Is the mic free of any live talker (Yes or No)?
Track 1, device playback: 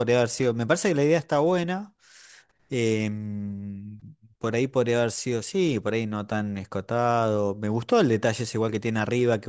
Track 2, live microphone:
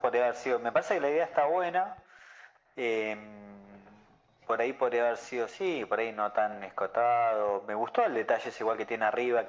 Yes